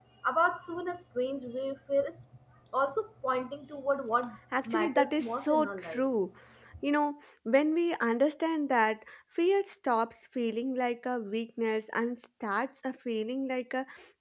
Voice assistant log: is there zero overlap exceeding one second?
No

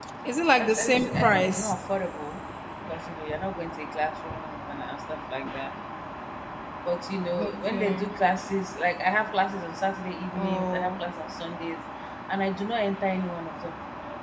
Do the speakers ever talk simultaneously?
Yes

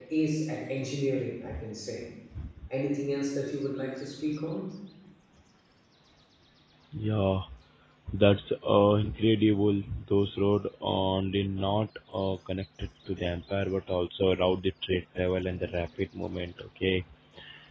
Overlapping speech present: No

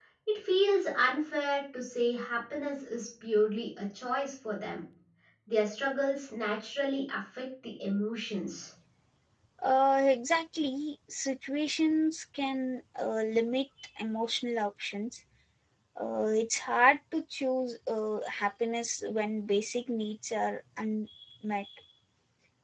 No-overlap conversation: Yes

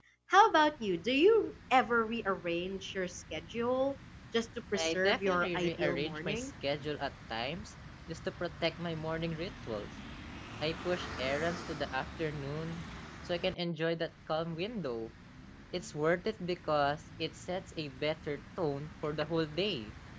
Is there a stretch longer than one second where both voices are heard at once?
Yes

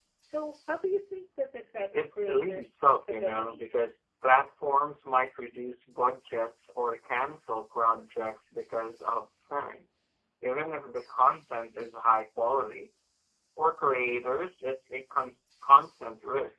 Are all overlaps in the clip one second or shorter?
No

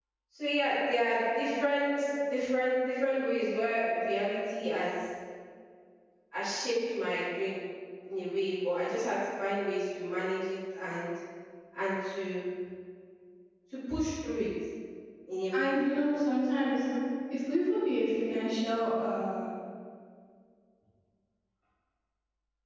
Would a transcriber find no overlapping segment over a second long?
Yes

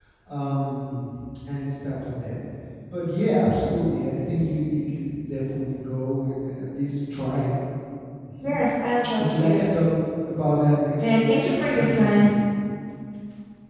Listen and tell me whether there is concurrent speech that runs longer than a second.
Yes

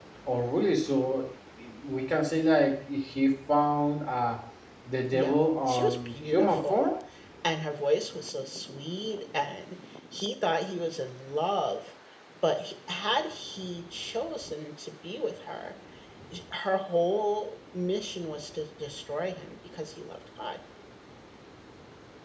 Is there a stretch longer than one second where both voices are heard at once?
Yes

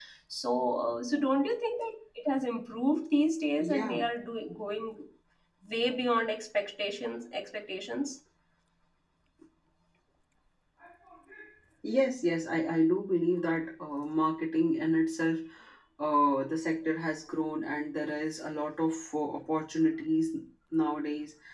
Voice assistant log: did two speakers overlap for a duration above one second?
No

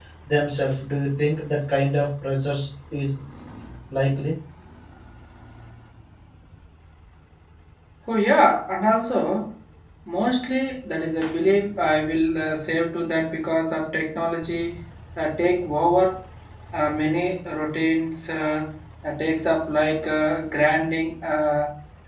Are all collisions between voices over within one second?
Yes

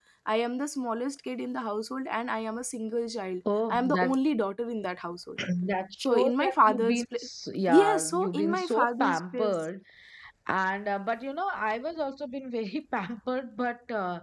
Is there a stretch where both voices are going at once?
Yes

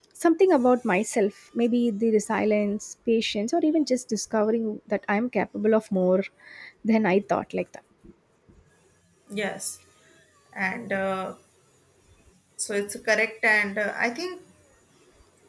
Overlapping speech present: No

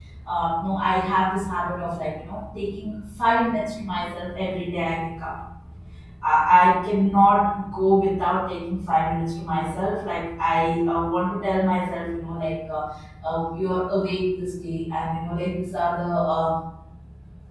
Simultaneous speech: No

